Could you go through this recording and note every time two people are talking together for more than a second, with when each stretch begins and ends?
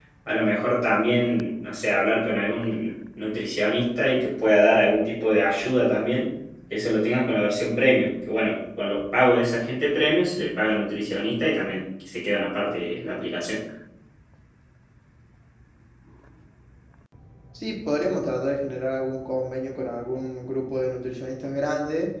none

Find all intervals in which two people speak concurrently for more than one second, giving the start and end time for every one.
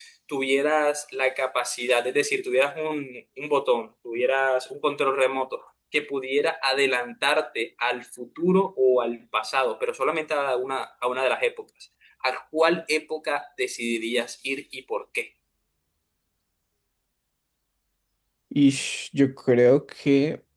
none

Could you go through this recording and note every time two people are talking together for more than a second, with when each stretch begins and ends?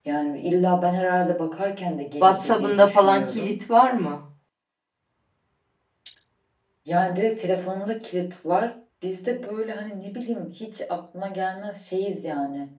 2.2-3.5

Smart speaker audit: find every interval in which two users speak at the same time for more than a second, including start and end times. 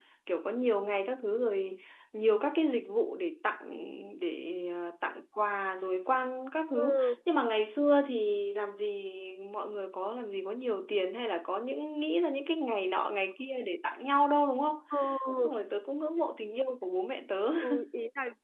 none

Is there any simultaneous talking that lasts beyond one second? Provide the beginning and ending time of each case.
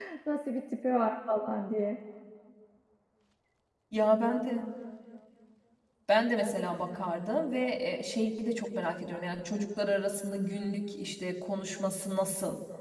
none

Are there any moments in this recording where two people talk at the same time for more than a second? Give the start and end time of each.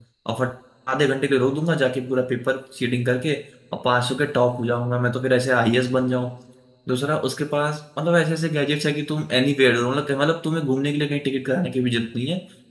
none

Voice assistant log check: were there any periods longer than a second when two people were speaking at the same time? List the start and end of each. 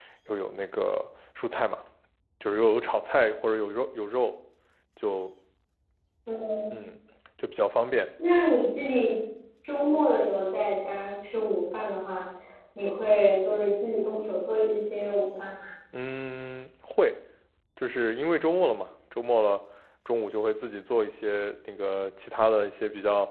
none

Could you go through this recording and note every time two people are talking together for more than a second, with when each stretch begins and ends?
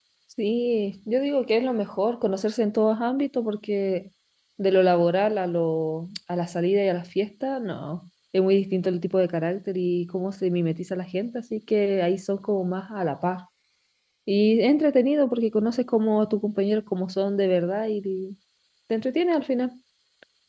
none

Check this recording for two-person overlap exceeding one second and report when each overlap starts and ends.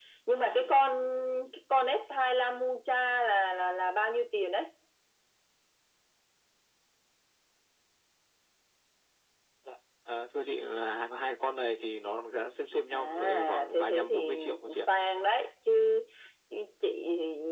12.9-14.9

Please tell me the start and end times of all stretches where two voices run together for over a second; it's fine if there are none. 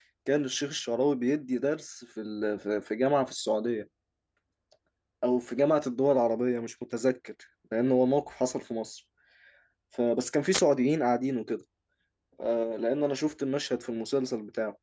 none

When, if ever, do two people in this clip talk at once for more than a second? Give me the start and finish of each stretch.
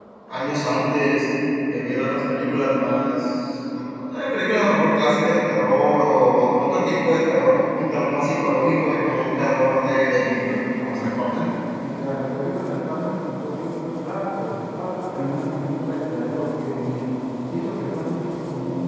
none

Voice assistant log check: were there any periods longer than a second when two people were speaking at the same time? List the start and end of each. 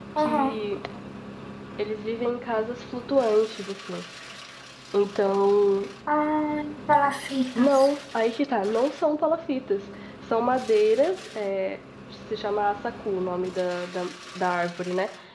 none

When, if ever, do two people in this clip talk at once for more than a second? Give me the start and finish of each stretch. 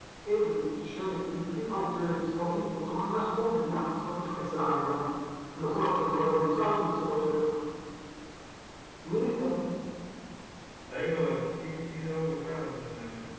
none

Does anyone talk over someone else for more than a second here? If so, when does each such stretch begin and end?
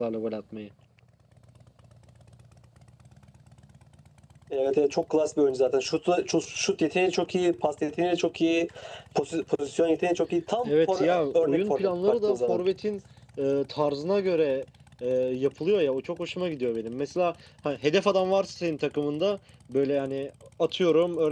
10.6-12.6

